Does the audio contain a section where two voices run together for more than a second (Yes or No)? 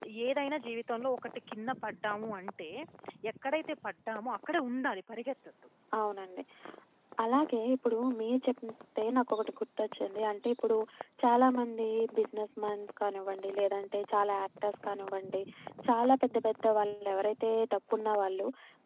No